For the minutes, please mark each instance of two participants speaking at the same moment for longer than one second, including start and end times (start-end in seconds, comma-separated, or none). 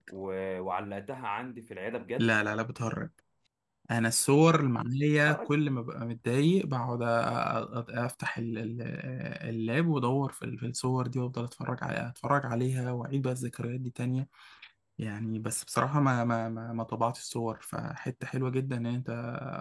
none